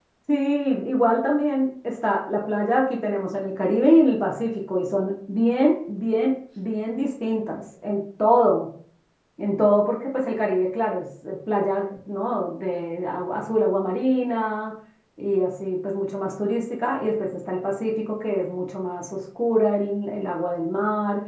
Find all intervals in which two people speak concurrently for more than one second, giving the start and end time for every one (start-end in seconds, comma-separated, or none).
none